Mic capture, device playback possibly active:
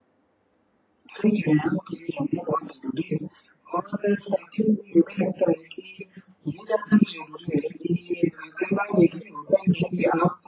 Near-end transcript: none

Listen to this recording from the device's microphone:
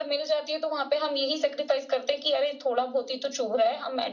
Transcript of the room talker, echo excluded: none

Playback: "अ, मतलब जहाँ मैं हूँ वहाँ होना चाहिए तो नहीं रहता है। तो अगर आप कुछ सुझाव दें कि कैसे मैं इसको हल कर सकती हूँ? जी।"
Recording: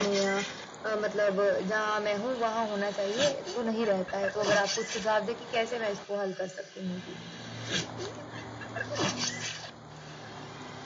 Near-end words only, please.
none

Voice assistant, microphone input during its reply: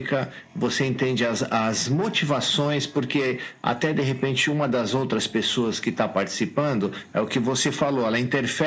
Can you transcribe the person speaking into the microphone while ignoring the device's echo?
none

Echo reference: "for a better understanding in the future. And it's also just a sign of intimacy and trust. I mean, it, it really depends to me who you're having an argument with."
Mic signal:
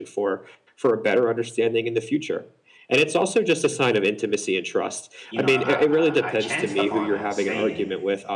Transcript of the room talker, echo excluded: you know, I, I I chanced upon a saying,

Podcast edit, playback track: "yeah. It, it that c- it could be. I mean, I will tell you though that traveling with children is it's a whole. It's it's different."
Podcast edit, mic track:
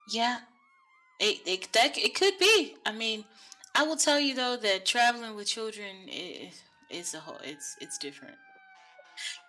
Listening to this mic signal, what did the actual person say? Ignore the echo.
none

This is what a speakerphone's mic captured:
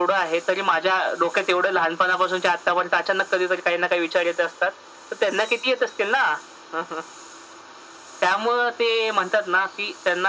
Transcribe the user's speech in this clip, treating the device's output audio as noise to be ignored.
none

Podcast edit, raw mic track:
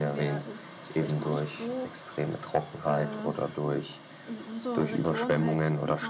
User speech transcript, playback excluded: none

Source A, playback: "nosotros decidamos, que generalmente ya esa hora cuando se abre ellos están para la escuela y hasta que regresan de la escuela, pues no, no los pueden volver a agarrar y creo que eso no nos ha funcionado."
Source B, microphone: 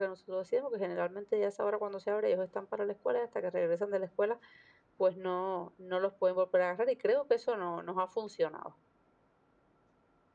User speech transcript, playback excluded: none

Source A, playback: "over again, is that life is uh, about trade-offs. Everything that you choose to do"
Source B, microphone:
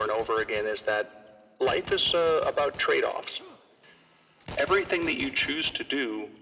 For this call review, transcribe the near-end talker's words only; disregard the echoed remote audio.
none

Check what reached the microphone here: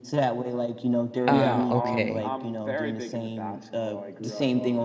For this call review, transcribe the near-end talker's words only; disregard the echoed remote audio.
Ah, okay.

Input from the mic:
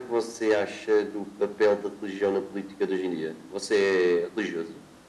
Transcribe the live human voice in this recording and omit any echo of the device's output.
none

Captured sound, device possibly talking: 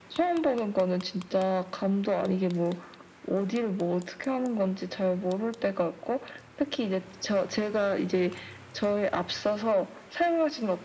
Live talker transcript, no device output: none

